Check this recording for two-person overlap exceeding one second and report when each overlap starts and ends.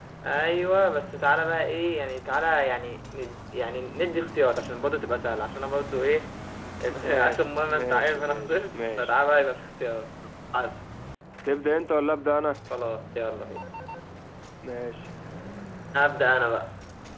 6.9-9.1

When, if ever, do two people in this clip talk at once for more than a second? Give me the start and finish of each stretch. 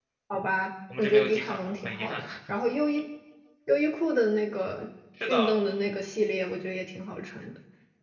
1.0-2.2

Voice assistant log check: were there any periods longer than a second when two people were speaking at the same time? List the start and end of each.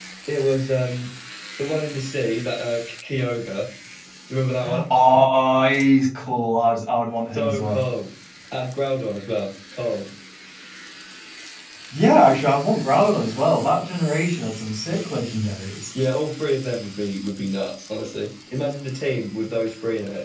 none

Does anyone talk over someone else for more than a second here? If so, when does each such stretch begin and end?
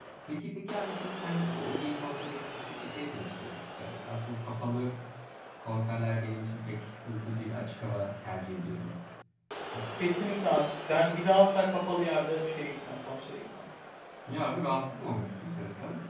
none

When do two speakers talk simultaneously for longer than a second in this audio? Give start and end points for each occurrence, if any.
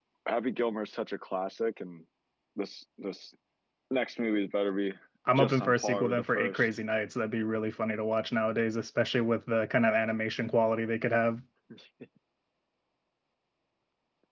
5.3-6.7

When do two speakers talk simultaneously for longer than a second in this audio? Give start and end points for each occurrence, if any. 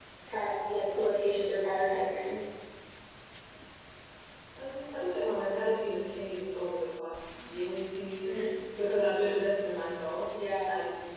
none

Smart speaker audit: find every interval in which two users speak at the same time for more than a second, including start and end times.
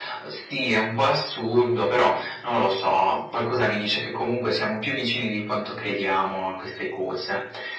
none

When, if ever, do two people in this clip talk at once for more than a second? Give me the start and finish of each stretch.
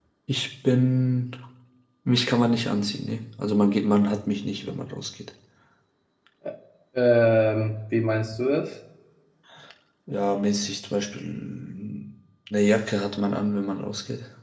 none

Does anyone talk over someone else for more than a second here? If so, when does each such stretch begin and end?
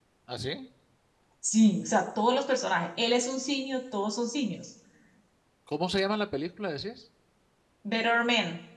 none

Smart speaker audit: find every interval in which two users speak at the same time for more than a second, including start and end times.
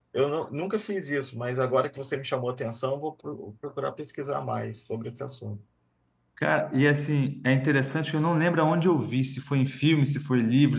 none

